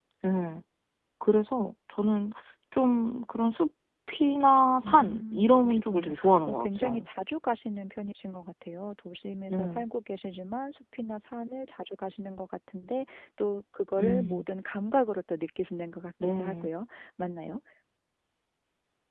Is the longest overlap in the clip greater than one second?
Yes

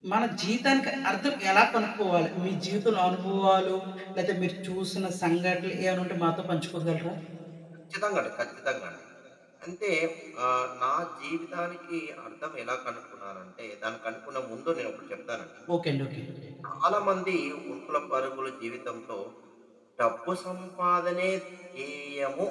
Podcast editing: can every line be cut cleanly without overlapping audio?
Yes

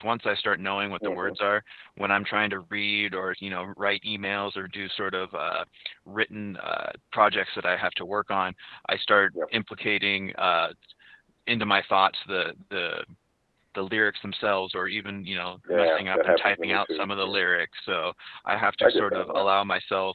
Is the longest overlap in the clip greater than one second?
Yes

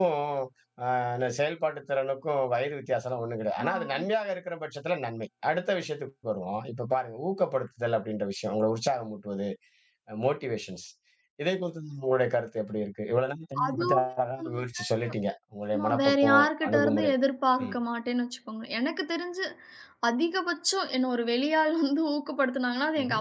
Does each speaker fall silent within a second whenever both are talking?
No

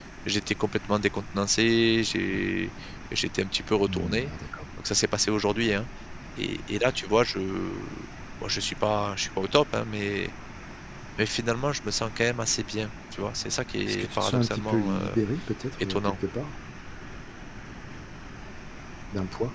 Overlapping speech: Yes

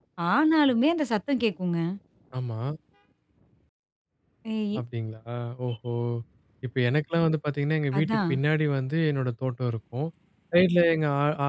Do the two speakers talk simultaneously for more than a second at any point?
No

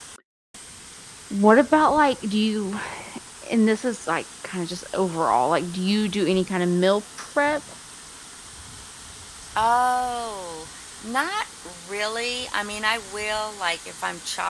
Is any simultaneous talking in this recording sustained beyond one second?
No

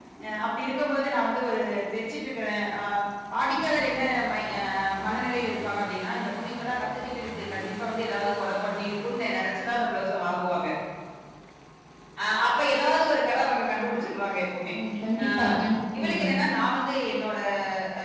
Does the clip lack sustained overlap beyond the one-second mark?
Yes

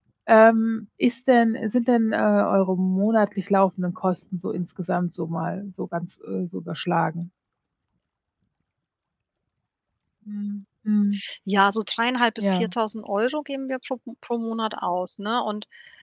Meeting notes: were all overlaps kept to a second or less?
Yes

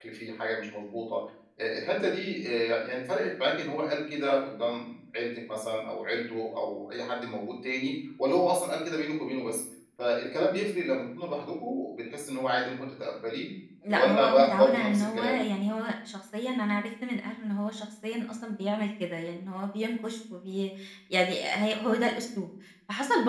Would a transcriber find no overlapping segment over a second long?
No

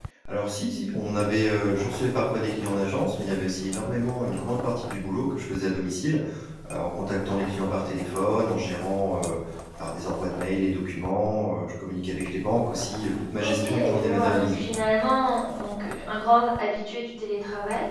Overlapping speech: Yes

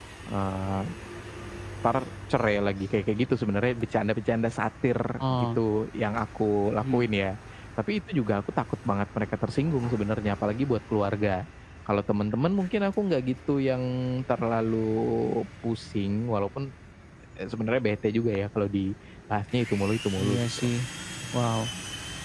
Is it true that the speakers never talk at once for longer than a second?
Yes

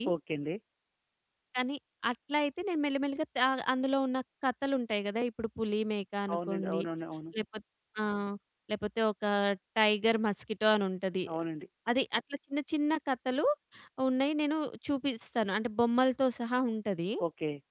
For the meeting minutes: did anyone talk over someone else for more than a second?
No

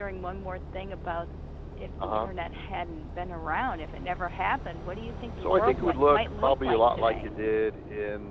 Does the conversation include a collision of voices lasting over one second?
Yes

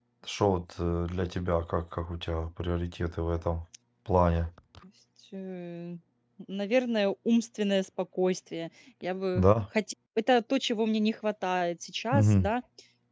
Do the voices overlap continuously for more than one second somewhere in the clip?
No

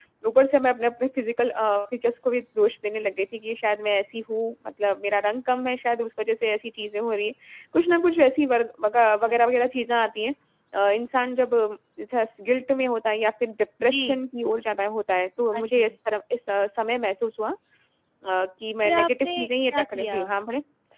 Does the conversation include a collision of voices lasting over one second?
Yes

